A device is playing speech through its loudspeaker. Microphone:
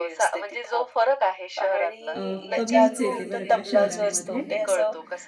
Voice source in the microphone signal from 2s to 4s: both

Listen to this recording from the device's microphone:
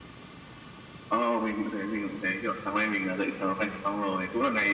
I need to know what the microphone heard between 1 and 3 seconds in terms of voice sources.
echo only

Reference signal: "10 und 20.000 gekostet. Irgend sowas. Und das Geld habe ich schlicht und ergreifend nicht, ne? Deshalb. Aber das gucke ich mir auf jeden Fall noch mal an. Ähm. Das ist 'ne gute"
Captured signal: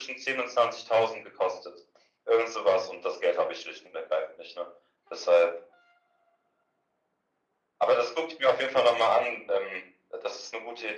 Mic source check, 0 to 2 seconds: echo only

